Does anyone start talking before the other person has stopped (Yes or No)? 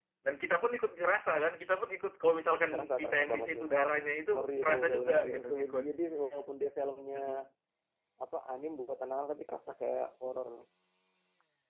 Yes